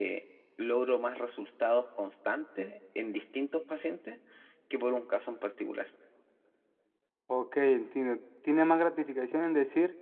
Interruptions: none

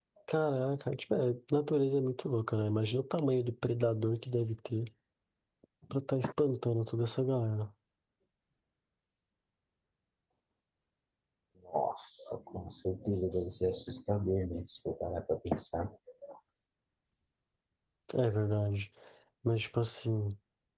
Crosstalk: none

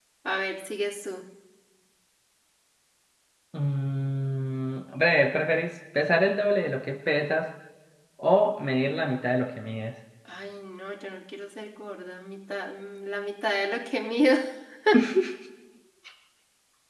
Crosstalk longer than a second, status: none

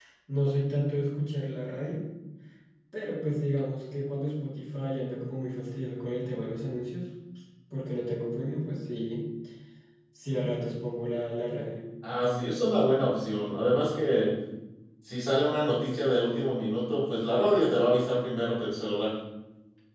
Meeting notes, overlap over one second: none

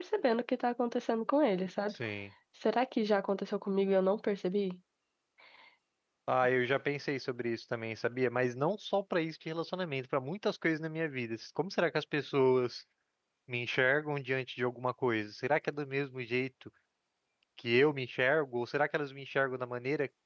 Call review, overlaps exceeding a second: none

